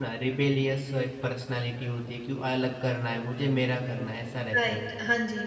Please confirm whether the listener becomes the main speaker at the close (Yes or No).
Yes